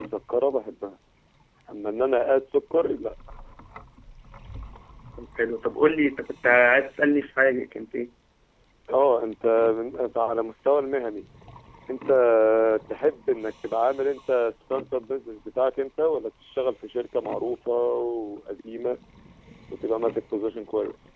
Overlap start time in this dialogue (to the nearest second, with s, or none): none